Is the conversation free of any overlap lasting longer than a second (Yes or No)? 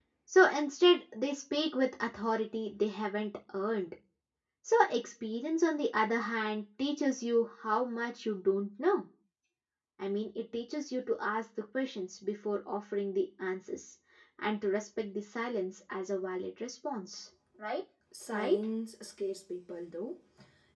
Yes